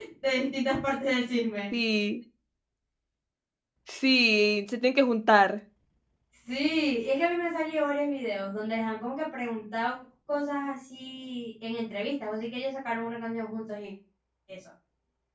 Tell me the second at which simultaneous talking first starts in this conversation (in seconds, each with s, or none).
none